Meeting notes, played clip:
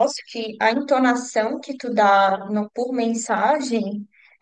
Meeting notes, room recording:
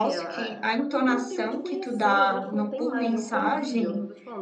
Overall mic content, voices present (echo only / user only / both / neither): both